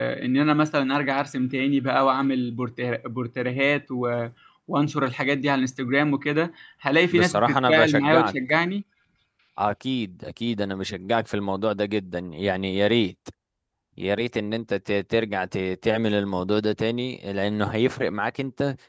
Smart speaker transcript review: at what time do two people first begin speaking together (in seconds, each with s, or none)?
7.1 s